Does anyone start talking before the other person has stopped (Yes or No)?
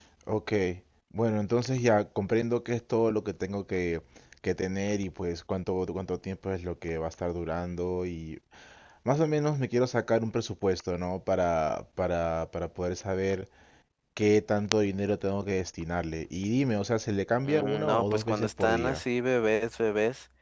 Yes